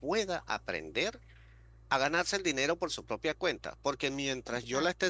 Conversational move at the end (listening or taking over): listening